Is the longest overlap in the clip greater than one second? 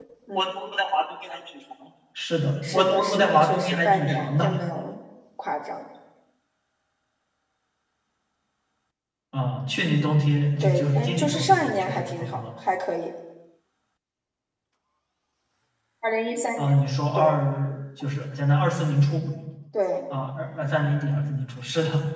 Yes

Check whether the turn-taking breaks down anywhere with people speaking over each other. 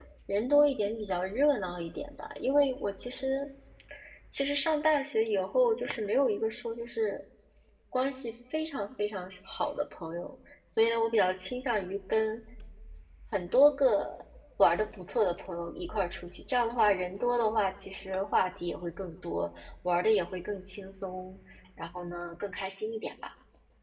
No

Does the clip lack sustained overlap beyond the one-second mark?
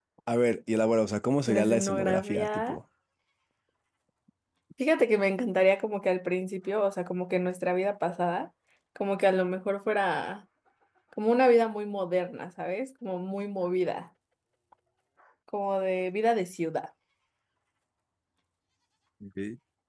No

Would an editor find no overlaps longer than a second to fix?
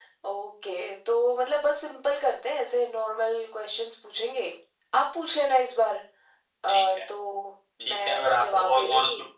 No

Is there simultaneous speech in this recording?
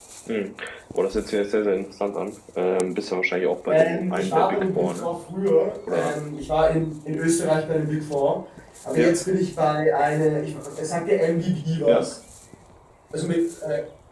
Yes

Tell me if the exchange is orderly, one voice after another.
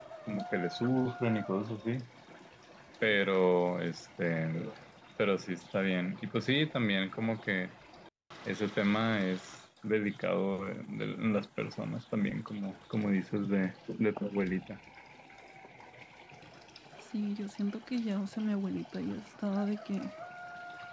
Yes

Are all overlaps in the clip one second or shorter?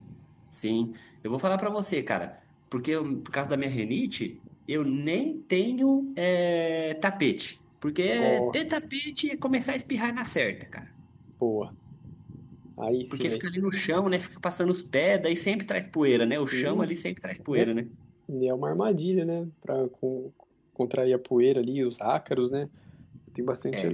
Yes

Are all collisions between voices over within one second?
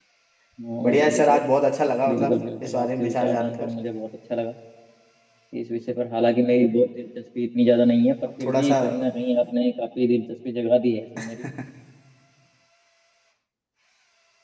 No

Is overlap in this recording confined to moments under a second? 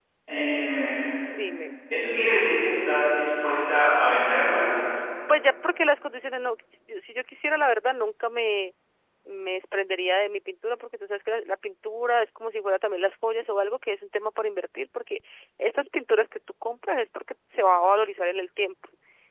Yes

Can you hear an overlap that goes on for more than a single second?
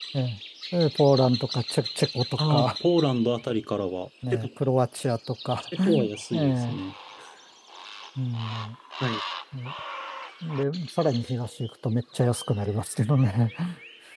No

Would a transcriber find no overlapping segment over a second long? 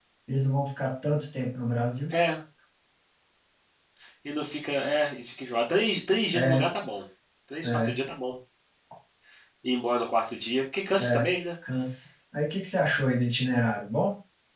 Yes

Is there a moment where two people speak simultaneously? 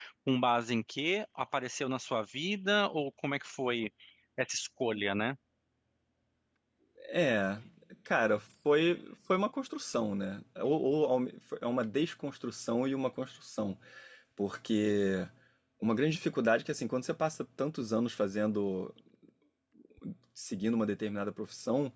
No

